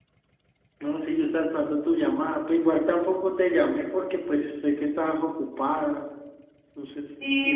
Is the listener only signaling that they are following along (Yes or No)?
No